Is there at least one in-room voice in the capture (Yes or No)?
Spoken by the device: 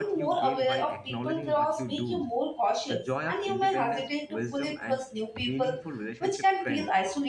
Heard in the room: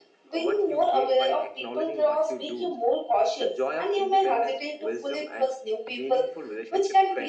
No